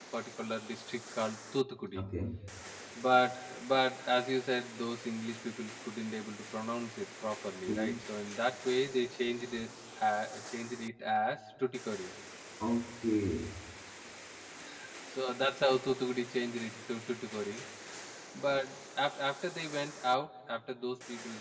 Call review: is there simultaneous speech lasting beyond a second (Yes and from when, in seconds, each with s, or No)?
No